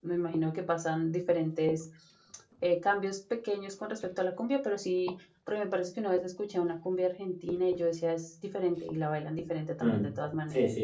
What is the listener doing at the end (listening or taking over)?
taking over